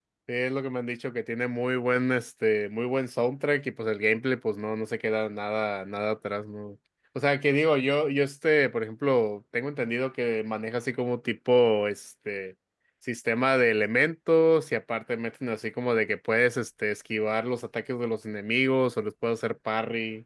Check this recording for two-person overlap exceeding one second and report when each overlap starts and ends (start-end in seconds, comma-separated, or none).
none